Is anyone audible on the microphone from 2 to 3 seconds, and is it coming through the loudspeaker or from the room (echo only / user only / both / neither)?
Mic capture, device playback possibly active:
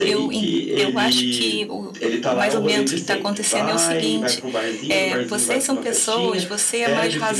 both